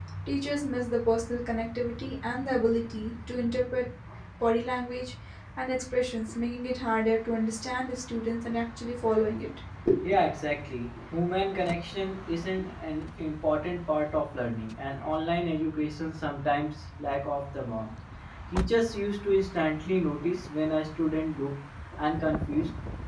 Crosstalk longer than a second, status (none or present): none